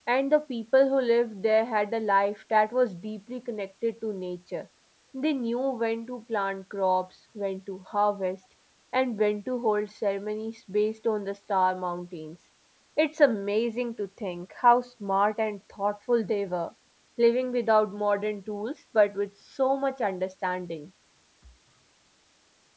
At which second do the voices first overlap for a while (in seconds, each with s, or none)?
none